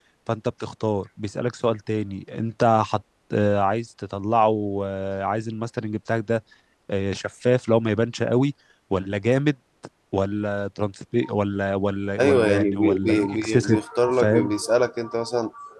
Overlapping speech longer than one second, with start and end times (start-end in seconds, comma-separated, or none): 12.2-13.8